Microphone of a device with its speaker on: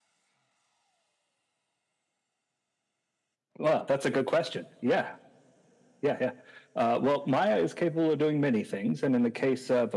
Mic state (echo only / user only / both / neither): echo only